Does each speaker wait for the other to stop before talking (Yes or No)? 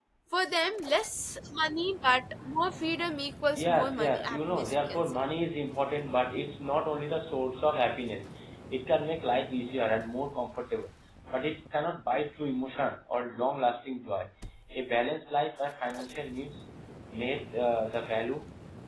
No